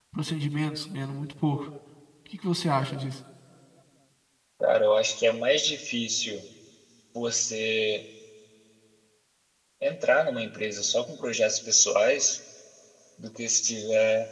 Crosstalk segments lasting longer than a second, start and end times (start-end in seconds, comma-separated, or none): none